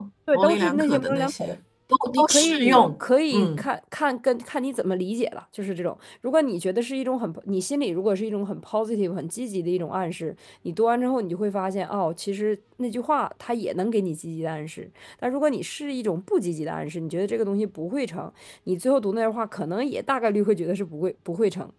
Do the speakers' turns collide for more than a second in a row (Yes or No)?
Yes